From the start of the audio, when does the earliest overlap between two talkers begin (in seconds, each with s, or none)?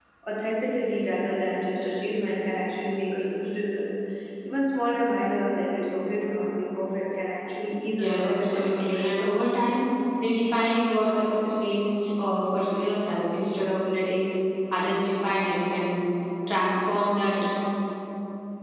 8.0 s